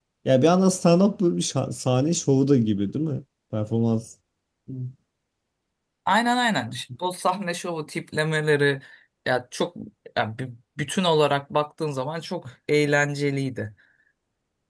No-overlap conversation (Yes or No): Yes